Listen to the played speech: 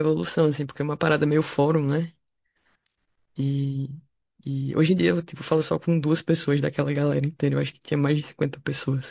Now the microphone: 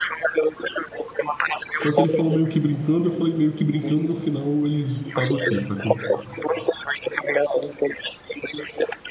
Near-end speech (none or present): present